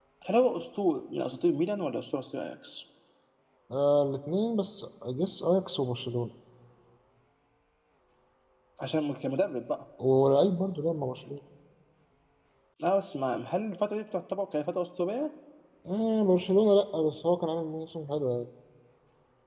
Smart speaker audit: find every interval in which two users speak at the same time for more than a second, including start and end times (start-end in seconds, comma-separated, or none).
none